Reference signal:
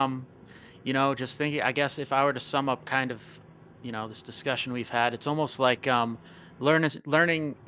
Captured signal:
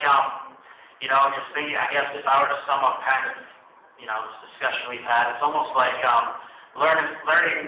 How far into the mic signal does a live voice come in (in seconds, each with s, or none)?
none